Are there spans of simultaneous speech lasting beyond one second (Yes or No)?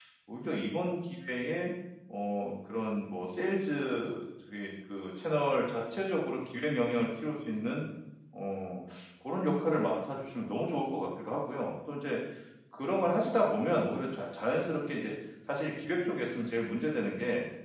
No